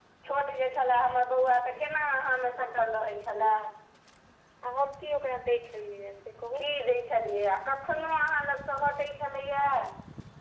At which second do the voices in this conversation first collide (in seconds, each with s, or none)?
none